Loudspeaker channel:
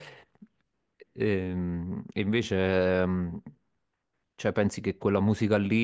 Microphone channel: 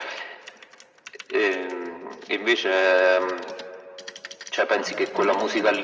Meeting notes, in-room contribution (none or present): present